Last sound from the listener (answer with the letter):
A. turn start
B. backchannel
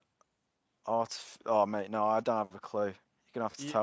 A